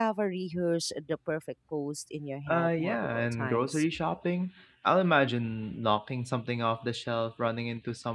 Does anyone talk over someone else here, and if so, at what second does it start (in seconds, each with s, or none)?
2.5 s